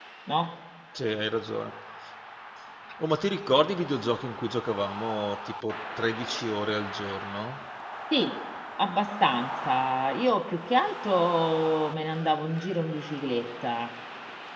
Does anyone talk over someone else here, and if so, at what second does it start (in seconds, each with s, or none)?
none